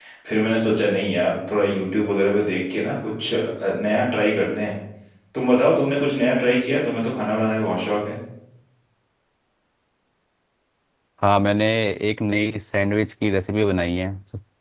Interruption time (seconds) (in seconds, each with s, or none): none